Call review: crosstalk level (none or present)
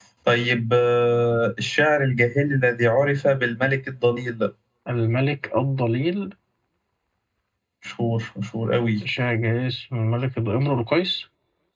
none